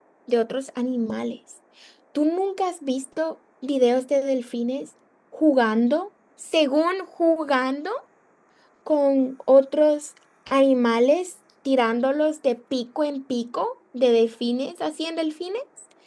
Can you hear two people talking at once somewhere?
No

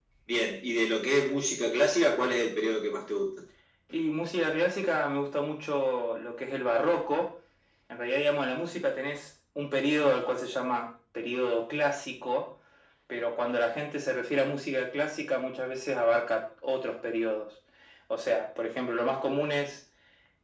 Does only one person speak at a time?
Yes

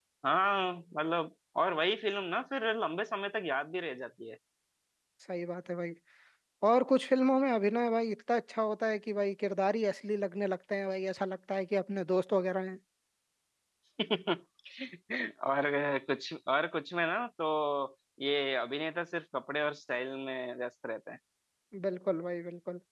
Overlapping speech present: No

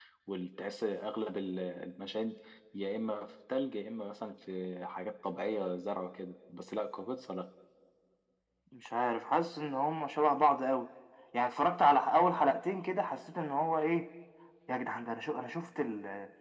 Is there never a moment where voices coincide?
Yes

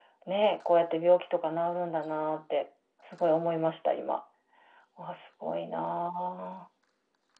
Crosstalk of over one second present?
No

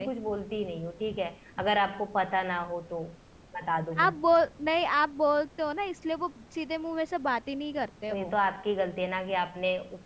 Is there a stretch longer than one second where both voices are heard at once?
No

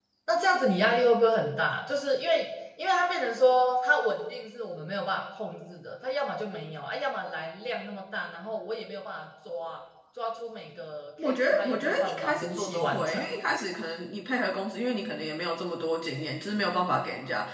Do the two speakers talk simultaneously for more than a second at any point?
Yes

